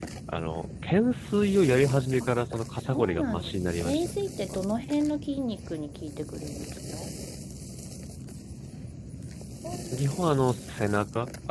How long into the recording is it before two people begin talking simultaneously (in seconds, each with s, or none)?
2.8 s